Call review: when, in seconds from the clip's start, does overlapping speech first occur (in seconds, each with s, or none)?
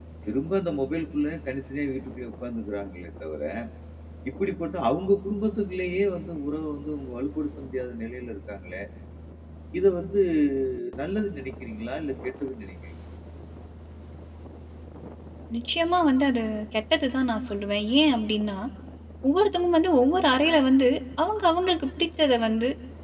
none